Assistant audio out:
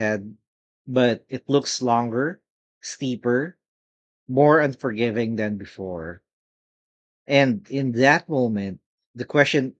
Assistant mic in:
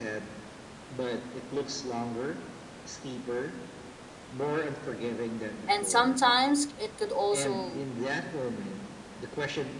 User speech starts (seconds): 5.7 s

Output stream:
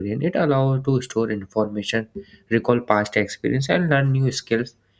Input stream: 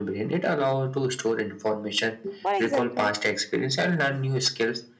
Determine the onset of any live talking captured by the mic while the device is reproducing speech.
2.4 s

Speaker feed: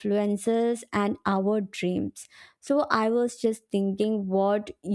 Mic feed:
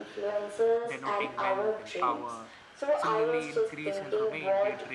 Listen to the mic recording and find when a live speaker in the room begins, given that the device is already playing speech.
0.9 s

